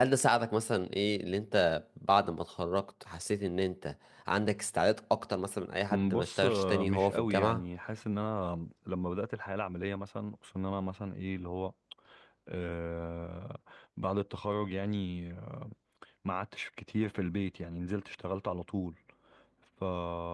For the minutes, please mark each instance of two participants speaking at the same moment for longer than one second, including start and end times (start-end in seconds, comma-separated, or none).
5.9-7.6